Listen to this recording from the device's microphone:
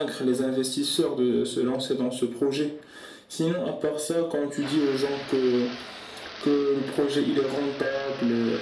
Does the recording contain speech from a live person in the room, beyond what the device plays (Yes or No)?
No